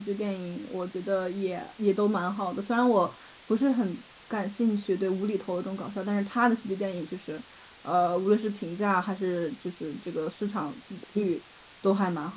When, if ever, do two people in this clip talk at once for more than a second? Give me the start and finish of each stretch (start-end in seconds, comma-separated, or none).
none